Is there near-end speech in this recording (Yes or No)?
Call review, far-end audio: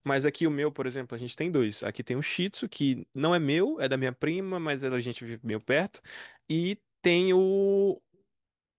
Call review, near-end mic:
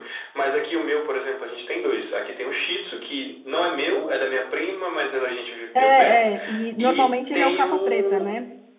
Yes